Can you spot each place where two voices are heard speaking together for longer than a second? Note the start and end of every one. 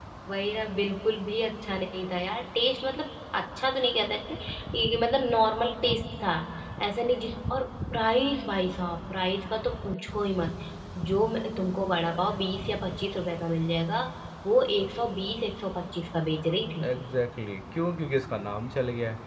none

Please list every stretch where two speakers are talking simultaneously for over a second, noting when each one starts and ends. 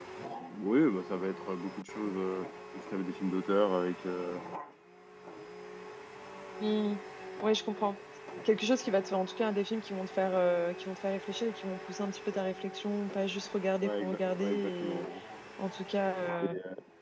13.8-15.0

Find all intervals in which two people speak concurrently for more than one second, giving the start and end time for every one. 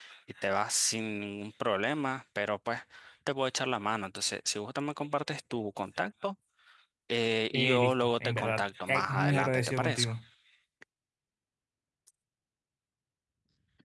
7.5-10.1

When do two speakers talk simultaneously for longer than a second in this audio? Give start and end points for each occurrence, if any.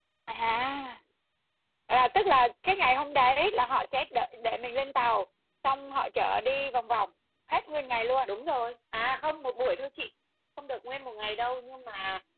none

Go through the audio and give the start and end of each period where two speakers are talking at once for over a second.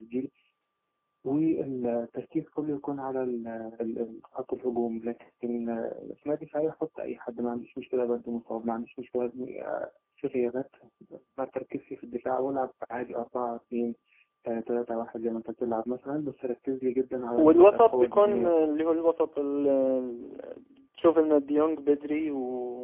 17.4-18.7

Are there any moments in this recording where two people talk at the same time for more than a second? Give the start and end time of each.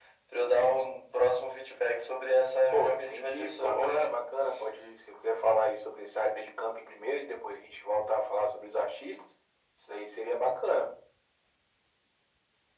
2.7-4.2

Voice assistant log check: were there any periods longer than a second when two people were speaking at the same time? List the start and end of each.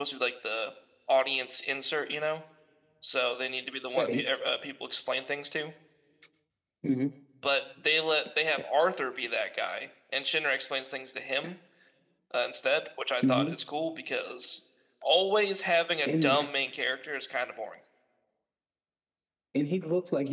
none

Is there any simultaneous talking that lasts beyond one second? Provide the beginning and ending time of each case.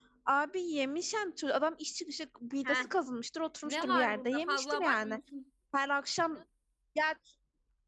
3.6-5.2

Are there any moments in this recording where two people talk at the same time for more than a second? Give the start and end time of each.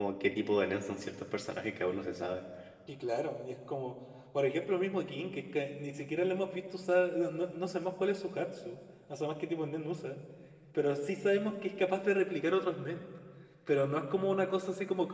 none

